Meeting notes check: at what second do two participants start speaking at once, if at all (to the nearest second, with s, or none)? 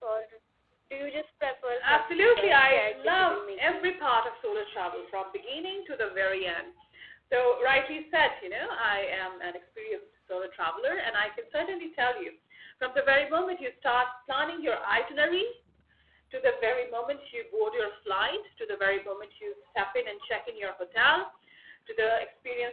2 s